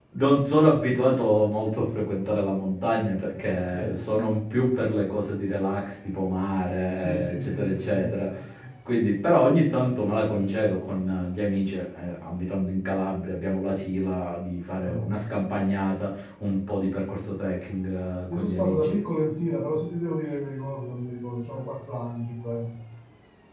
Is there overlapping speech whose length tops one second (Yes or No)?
Yes